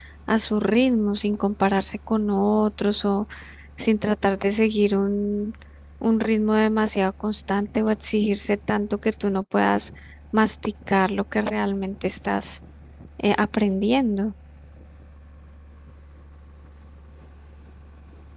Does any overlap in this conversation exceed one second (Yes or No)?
No